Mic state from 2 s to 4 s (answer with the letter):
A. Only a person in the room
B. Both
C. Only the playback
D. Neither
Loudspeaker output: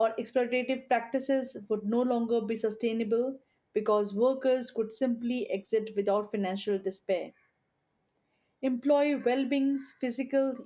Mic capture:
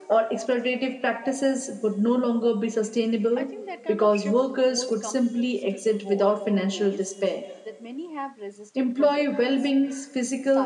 B